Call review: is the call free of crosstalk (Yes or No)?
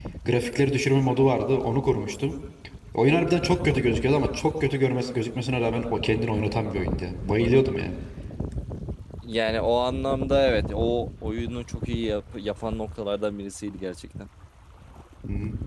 Yes